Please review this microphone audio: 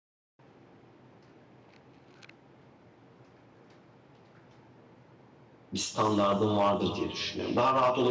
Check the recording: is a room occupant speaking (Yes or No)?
Yes